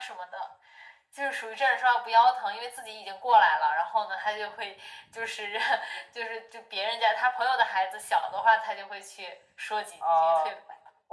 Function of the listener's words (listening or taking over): taking over